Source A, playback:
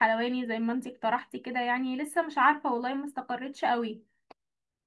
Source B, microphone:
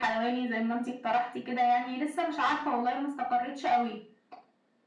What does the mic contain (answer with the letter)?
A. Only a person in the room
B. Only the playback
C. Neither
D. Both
B